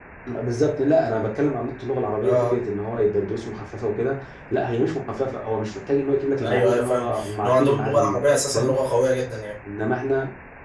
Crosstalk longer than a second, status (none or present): present